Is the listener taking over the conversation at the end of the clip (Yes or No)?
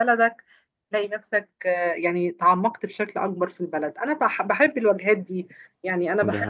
No